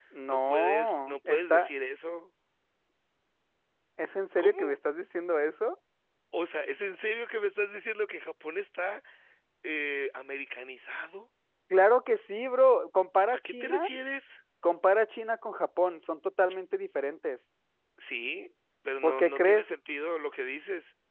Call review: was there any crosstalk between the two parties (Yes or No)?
Yes